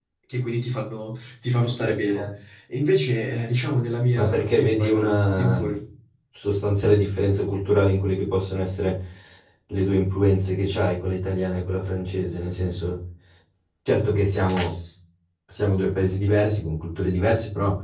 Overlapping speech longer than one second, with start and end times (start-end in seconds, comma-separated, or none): 4.2-5.6